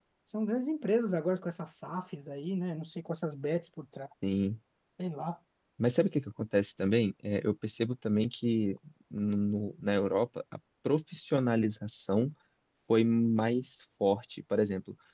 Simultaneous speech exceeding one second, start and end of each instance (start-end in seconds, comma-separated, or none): none